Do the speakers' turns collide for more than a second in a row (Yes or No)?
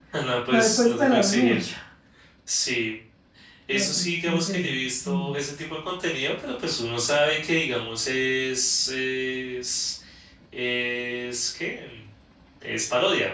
Yes